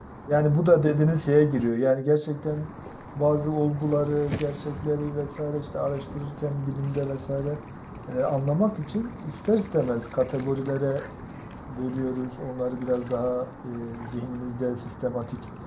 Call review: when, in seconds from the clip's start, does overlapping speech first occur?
none

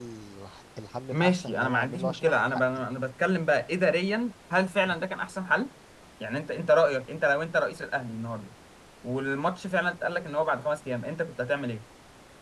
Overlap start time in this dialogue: 1.1 s

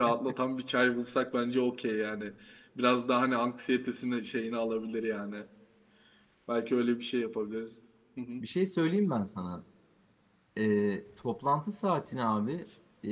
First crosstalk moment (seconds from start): none

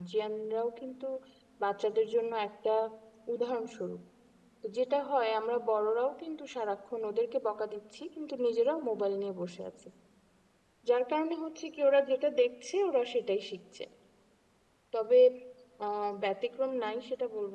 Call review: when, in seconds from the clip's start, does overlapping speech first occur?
none

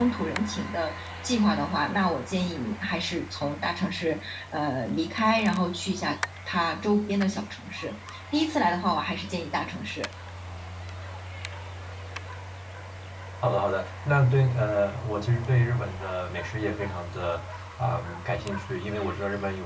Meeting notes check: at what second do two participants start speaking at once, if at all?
none

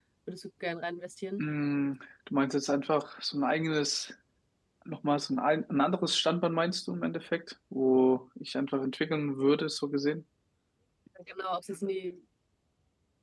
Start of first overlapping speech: none

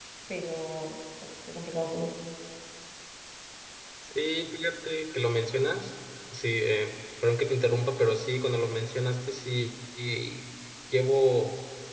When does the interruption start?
none

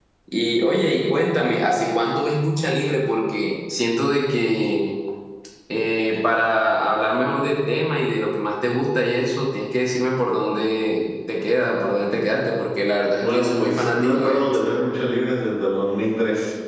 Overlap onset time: 13.1 s

